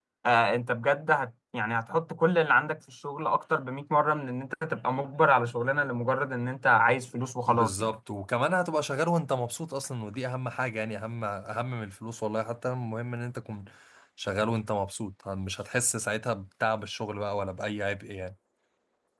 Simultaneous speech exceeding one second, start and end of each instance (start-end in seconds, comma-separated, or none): none